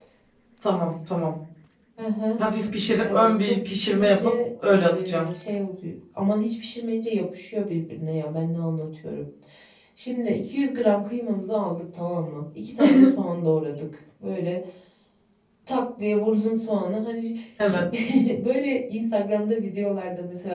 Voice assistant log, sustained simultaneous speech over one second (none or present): present